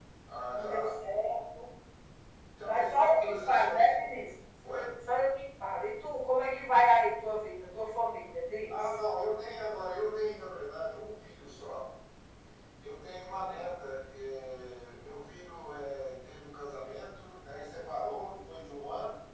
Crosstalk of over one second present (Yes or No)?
Yes